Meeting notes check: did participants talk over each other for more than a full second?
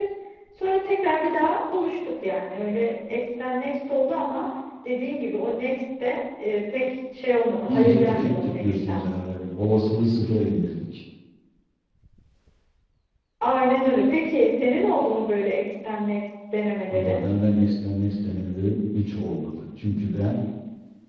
Yes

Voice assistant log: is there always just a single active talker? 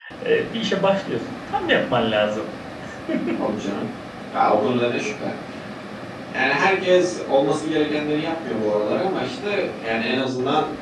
Yes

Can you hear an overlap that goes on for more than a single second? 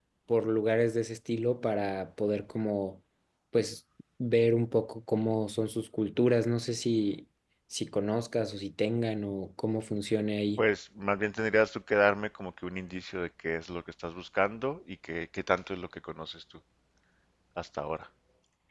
No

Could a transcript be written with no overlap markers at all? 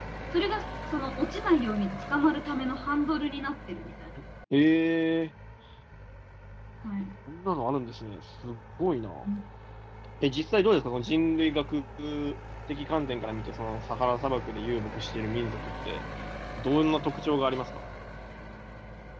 Yes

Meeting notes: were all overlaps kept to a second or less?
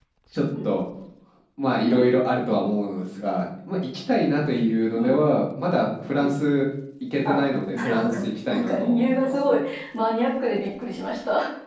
No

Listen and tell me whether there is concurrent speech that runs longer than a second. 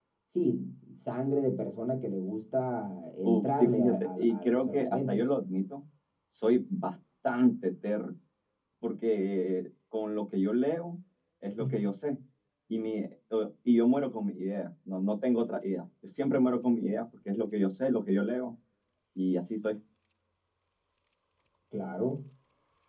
Yes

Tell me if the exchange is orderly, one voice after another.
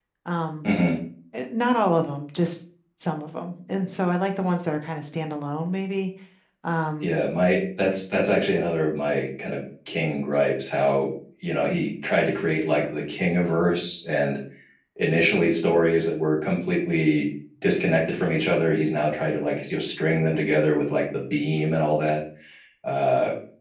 Yes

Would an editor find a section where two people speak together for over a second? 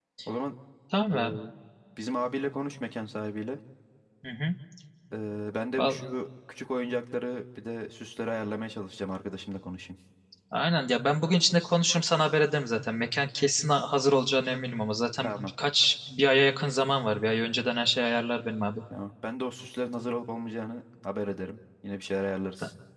No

